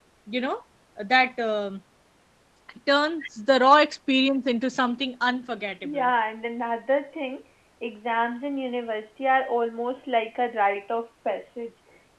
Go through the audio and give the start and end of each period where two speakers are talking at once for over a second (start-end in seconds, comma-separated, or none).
none